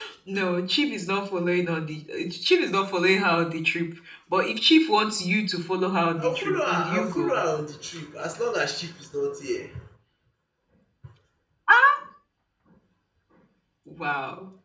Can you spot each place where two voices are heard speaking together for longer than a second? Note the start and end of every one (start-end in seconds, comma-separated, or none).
6.2-7.4